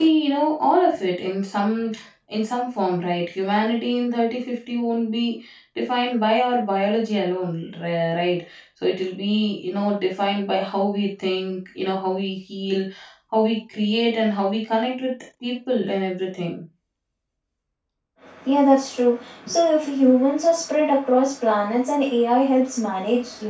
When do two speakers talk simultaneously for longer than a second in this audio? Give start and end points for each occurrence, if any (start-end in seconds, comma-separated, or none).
none